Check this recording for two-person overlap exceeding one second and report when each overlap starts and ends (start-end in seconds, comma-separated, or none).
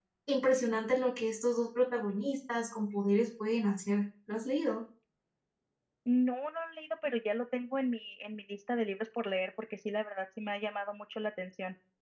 none